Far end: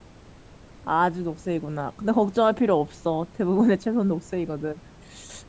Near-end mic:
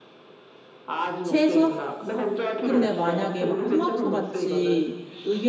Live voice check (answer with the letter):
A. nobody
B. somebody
B